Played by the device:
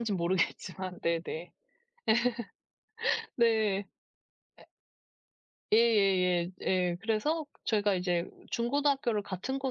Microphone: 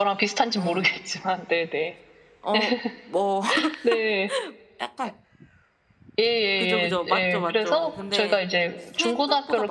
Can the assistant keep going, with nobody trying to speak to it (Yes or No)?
No